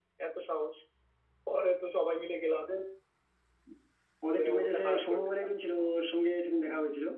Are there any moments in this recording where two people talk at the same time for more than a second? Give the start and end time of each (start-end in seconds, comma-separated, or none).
4.3-5.5